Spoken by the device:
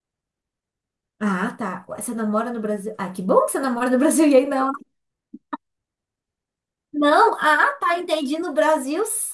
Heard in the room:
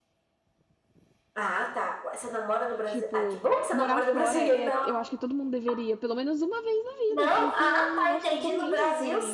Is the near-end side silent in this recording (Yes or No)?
No